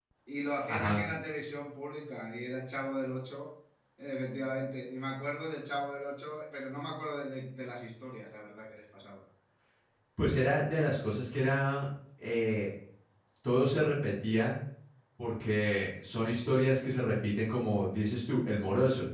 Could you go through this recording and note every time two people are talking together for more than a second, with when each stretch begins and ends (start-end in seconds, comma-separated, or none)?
none